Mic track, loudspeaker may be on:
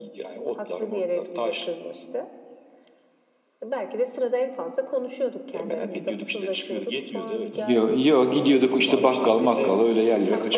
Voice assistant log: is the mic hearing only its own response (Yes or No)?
No